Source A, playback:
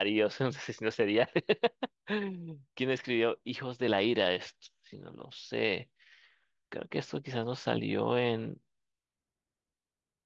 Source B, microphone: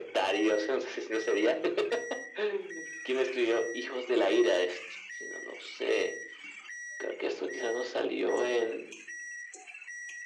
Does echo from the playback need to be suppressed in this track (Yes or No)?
Yes